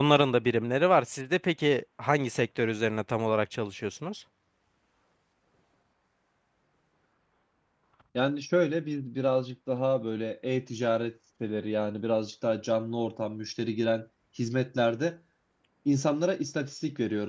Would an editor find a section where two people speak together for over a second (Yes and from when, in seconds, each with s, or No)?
No